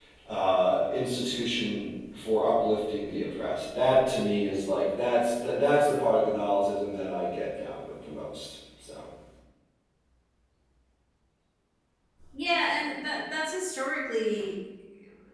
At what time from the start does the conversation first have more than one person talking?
none

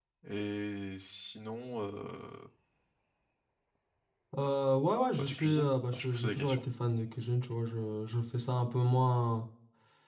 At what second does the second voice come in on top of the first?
5.1 s

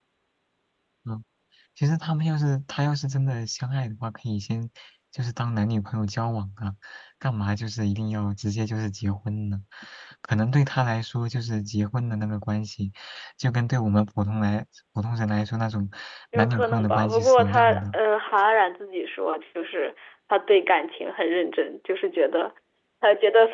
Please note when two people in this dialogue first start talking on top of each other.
16.4 s

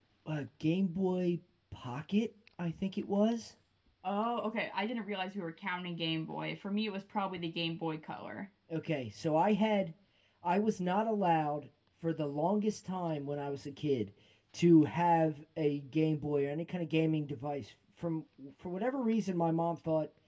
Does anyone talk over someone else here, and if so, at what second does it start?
none

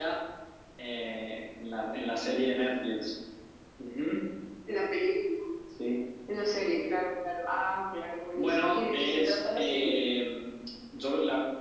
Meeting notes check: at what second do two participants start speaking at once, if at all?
8.3 s

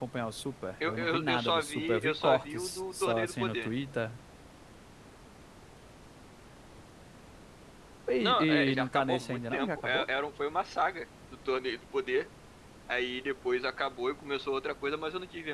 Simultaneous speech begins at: 0.8 s

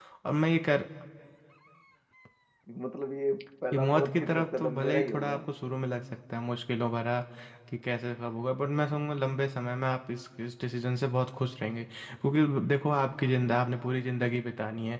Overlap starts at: 3.7 s

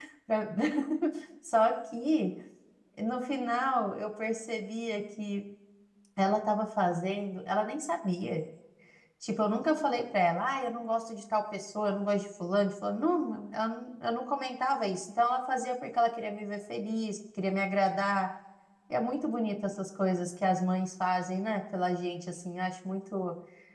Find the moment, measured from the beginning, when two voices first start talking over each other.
none

